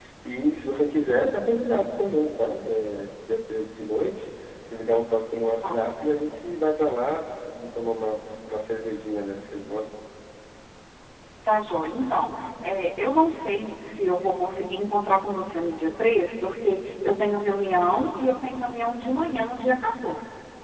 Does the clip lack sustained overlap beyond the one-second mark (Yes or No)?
Yes